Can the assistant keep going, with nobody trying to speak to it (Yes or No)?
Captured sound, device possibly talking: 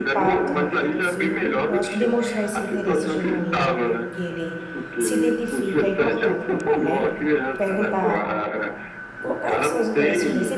No